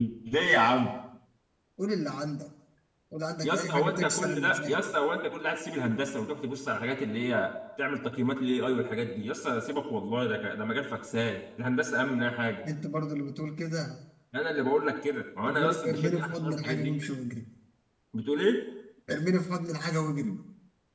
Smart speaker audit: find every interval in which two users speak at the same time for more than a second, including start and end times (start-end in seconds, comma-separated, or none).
3.4-4.8, 15.4-16.9